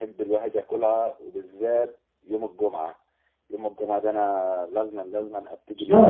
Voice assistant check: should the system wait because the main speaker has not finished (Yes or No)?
No